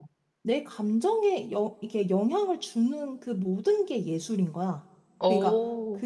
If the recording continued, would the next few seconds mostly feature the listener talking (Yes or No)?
No